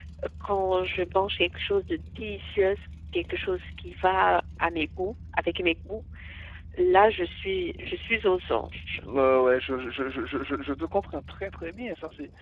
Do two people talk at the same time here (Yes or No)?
No